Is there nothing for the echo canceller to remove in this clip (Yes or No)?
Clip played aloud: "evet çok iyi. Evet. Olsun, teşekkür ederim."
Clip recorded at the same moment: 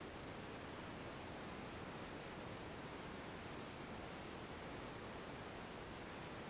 Yes